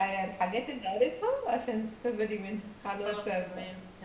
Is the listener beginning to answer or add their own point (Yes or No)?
Yes